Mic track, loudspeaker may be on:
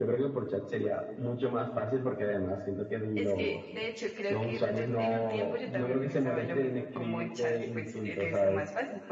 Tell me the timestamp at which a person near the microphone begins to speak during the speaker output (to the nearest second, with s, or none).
none